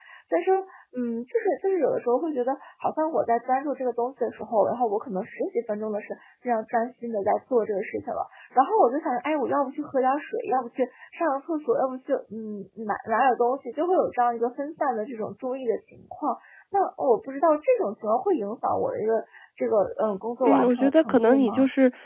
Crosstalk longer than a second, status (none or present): present